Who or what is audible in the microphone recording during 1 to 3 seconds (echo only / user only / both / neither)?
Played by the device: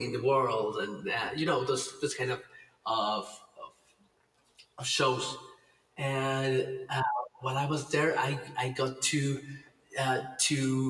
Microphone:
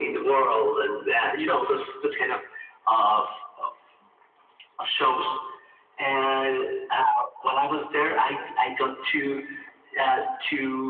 echo only